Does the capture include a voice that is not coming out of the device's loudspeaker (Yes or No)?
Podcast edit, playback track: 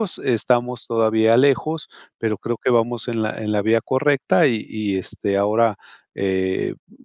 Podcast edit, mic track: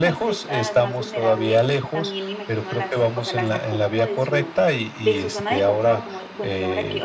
Yes